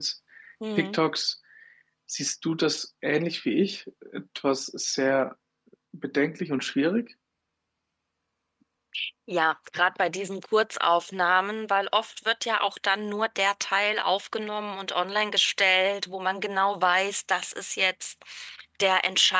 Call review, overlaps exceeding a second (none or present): none